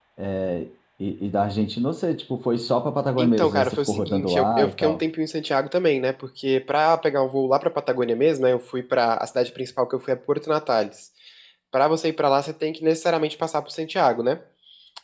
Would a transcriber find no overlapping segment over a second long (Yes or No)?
No